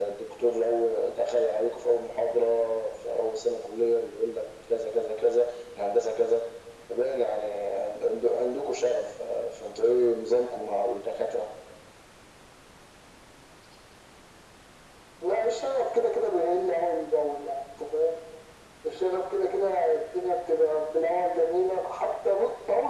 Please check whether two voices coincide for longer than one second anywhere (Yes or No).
No